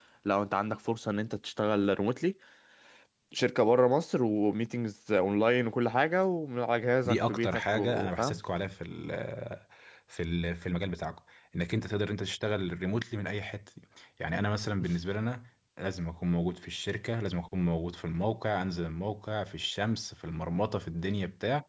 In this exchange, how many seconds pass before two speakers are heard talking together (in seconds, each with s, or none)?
7.0 s